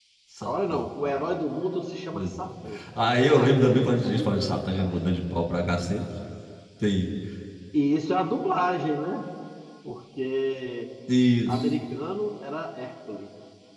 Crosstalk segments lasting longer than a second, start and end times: 3.3-4.9

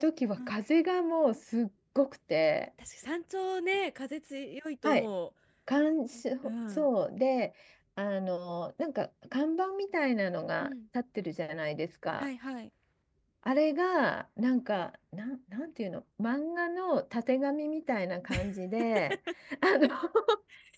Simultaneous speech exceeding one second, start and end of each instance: none

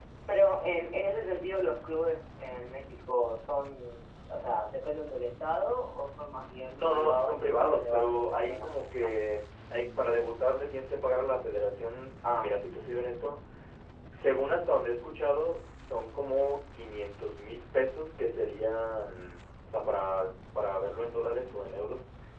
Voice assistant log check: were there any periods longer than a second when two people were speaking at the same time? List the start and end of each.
6.7-9.1

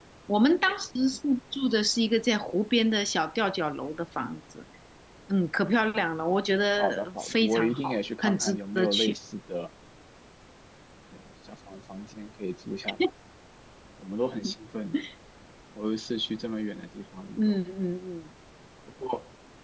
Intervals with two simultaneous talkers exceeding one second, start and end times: 6.8-9.1

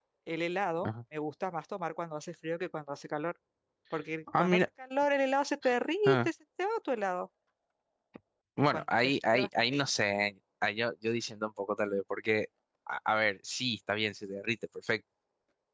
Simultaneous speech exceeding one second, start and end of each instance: 8.6-9.8

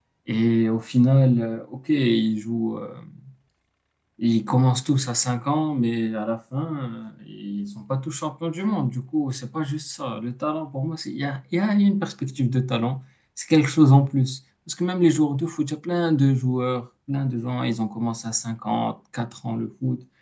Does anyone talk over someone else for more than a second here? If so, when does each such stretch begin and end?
none

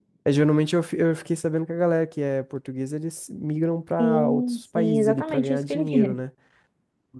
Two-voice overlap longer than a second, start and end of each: 4.0-6.2

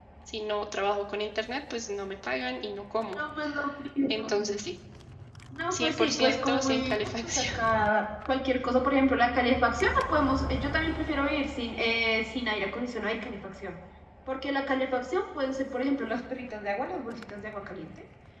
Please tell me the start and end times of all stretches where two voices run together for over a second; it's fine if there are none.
5.7-7.4

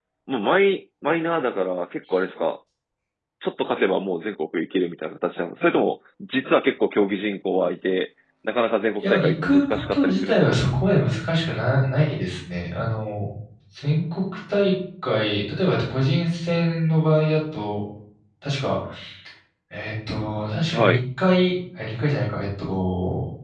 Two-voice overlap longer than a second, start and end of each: 9.0-10.6

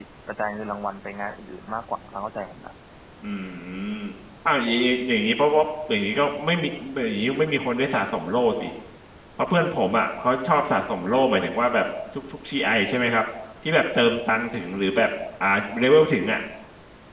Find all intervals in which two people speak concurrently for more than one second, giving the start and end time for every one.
none

